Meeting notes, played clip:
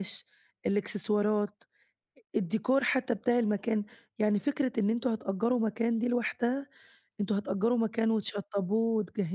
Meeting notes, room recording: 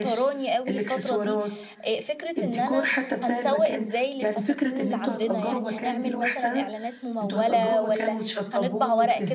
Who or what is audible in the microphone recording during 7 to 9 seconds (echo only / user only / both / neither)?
both